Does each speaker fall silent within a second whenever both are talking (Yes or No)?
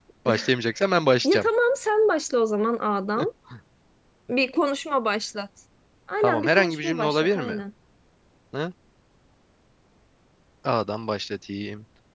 No